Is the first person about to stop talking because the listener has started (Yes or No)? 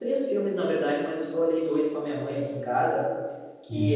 No